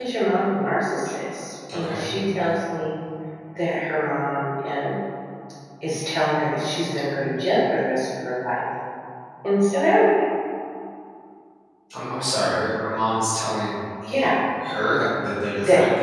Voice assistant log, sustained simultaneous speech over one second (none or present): none